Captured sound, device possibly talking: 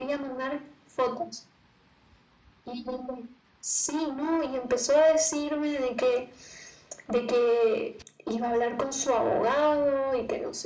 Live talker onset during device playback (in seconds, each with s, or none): none